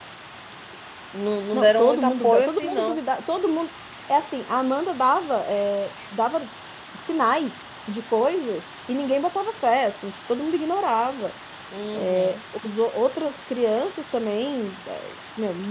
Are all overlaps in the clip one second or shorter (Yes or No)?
No